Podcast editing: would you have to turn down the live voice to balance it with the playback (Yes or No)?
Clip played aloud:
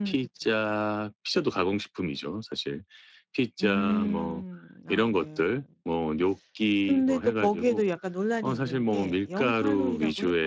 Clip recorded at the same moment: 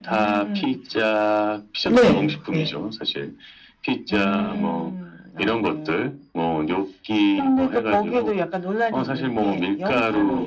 Yes